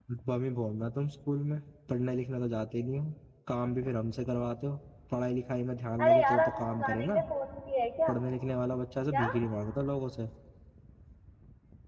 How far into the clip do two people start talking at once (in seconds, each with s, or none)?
6.0 s